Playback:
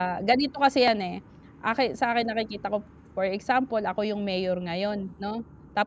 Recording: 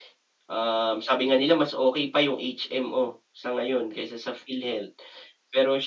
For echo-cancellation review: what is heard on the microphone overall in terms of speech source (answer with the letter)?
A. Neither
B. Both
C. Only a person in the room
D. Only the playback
C